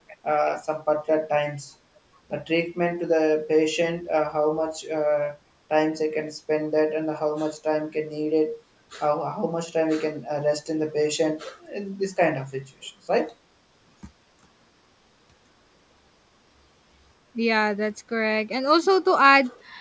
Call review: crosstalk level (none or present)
none